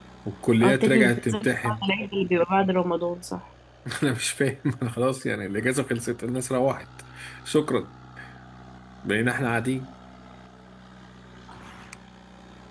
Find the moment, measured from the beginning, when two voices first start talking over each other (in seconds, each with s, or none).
0.6 s